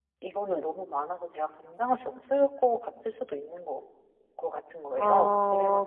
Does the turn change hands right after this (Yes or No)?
Yes